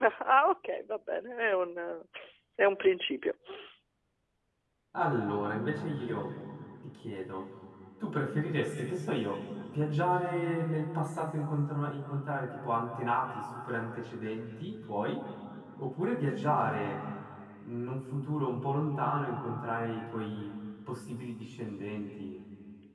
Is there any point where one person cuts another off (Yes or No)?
No